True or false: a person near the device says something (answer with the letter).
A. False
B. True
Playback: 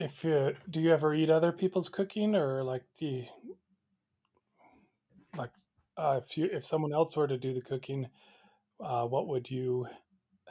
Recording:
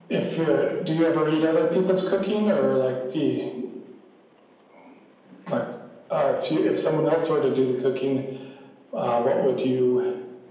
A